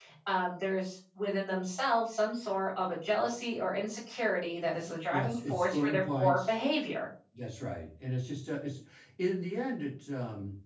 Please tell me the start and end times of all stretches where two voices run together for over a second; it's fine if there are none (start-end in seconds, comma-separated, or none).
5.1-6.6